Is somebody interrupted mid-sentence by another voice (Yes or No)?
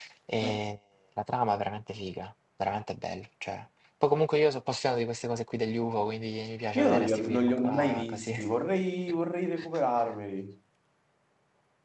Yes